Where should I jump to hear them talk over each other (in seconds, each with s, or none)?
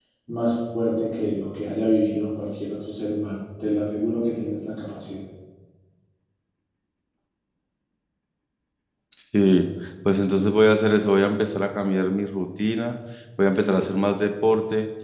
none